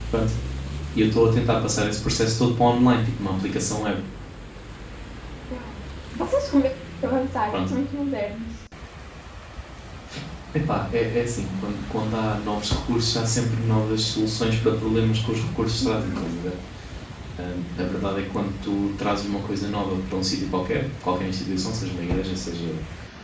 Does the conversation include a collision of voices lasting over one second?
No

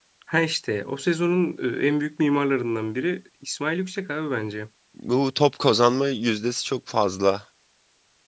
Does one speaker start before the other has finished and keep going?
No

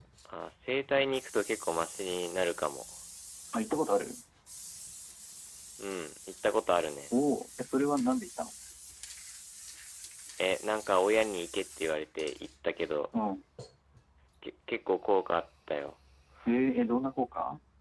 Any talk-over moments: No

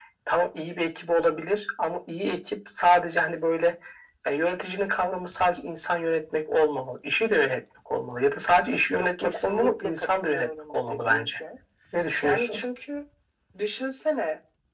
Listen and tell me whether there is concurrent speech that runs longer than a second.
Yes, from 8.9 s

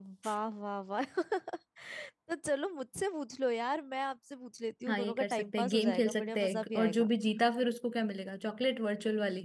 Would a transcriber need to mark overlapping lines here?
Yes, from 4.9 s

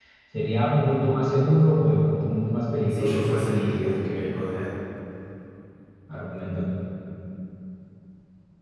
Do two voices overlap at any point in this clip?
Yes, from 2.9 s

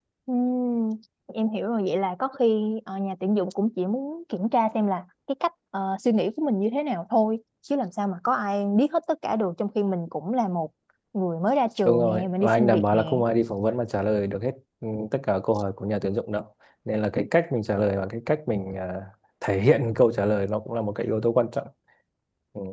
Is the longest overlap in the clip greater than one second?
Yes, from 11.8 s

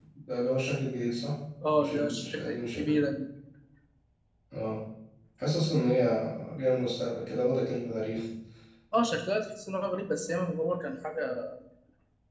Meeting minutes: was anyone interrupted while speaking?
Yes, from 1.8 s

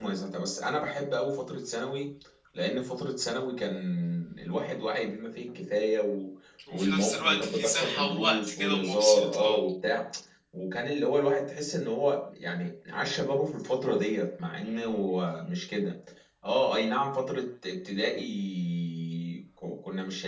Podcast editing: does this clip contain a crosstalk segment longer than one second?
Yes, from 6.7 s

